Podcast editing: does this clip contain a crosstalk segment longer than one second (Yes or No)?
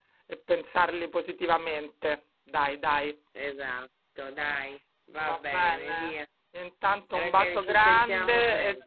Yes